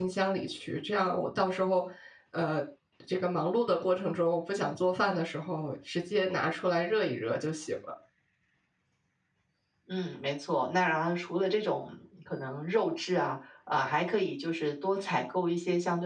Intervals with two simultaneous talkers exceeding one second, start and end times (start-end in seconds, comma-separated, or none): none